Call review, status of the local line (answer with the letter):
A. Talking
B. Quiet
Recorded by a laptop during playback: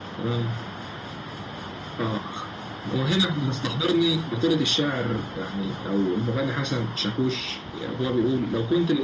B